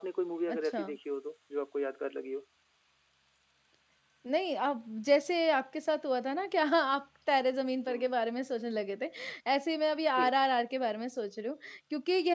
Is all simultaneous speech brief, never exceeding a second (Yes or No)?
Yes